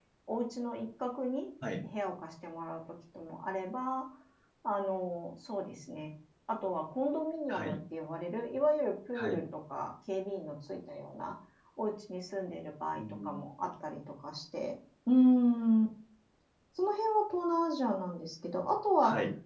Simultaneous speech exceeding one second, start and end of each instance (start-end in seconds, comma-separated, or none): none